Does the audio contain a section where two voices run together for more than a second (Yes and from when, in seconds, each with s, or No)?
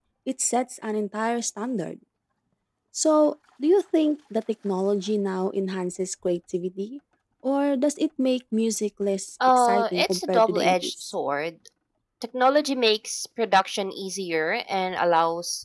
Yes, from 9.4 s